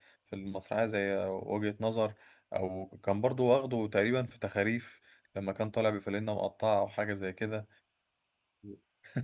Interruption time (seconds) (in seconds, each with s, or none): none